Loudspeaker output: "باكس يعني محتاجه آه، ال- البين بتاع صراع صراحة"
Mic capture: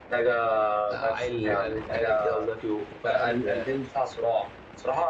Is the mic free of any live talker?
No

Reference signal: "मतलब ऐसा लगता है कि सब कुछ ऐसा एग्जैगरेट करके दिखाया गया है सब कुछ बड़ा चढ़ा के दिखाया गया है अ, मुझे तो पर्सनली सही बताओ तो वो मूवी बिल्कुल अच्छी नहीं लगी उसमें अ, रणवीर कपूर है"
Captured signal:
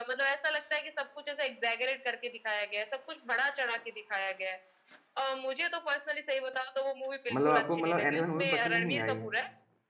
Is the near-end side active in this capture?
Yes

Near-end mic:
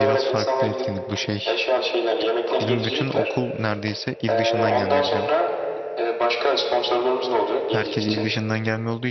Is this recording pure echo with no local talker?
No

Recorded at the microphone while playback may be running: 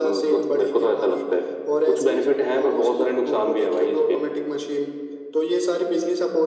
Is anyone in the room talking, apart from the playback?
No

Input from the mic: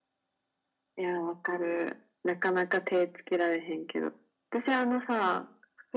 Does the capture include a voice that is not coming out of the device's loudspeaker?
No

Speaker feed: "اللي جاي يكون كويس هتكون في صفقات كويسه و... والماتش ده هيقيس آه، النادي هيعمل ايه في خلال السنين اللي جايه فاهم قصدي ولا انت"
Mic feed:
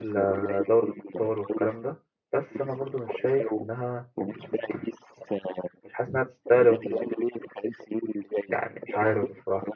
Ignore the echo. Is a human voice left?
Yes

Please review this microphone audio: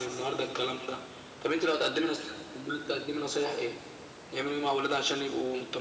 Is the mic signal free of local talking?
Yes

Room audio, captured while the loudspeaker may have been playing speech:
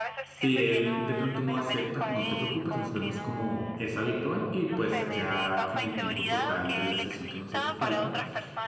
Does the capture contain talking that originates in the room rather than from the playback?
Yes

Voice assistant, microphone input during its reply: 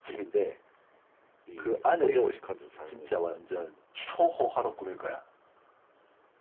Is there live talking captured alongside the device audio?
Yes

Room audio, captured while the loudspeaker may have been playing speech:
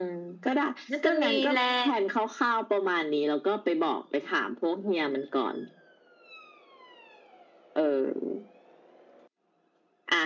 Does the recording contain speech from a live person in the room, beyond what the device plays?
Yes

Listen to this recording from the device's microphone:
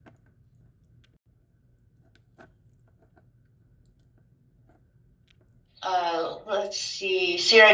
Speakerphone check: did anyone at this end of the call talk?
Yes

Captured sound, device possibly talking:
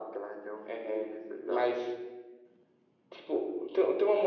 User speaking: No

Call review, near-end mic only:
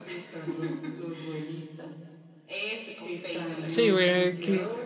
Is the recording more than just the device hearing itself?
Yes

